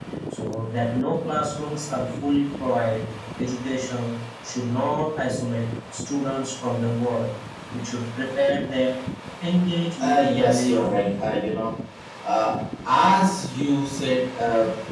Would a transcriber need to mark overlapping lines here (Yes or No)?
Yes